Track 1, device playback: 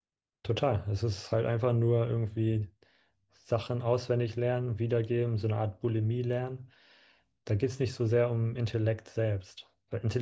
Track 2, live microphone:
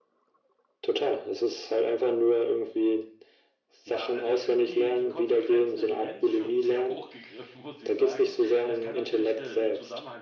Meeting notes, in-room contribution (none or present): present